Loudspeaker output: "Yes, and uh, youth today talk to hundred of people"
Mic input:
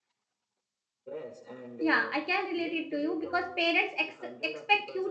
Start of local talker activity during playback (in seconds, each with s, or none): 1.8 s